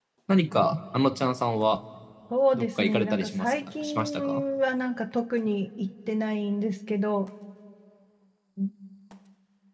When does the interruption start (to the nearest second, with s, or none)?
3 s